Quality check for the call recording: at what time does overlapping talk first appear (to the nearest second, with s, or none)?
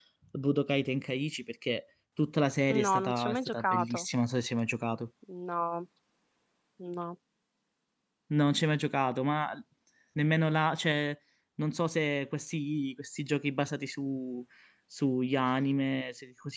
3 s